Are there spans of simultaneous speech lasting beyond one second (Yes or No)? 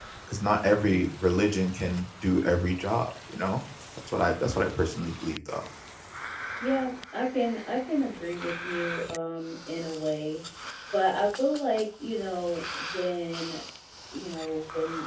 No